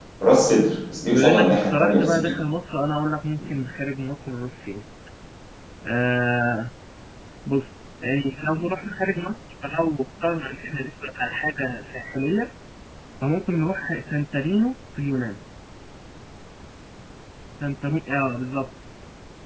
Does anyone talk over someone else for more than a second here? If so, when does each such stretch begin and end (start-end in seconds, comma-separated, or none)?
1.1-2.3